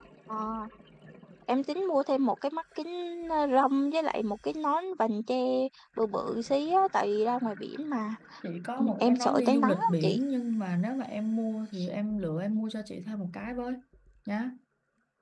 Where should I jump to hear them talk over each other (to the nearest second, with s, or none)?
9 s